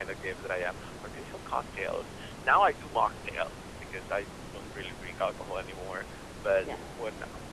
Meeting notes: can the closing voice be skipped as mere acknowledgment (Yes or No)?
Yes